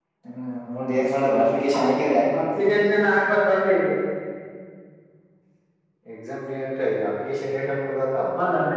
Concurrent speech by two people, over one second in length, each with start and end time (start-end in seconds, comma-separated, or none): none